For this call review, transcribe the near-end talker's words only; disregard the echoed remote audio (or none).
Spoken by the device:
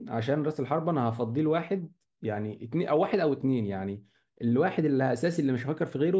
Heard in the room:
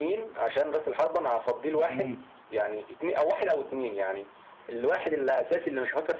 يعني ممكن